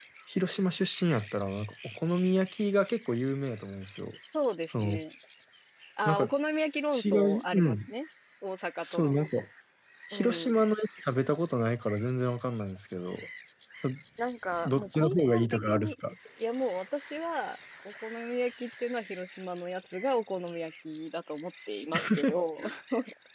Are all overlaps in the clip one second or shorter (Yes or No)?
No